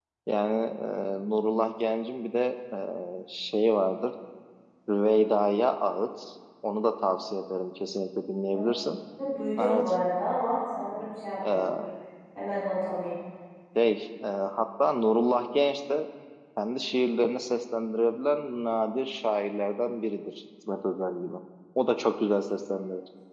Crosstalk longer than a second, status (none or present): none